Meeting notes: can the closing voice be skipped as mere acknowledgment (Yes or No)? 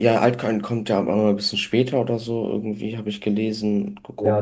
No